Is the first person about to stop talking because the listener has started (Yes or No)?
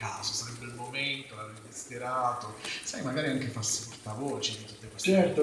Yes